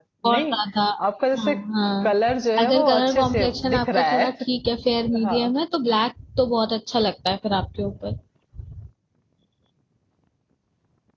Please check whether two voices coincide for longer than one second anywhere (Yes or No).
Yes